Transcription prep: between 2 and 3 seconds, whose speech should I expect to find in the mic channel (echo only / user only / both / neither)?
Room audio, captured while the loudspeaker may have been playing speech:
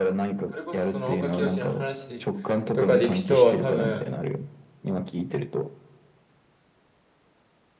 both